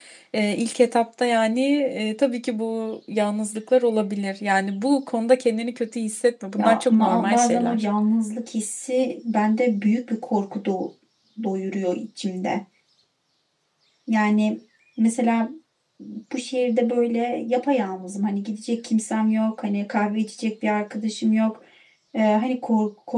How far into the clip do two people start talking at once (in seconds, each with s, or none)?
6.6 s